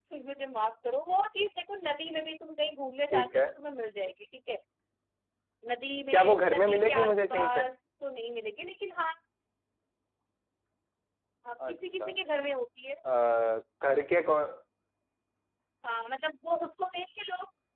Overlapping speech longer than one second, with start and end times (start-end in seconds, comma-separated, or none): 6.1-7.6